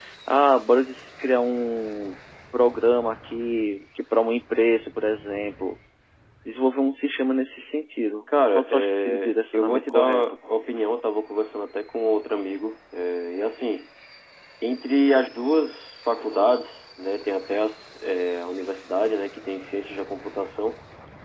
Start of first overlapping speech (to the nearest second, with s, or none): 9 s